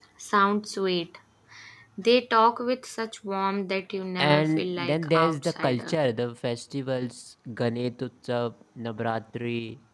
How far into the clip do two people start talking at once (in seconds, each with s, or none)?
4.2 s